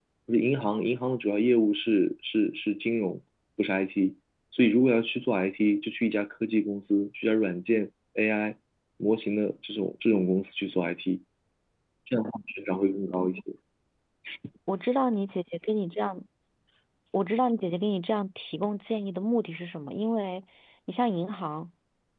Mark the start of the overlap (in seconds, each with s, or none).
none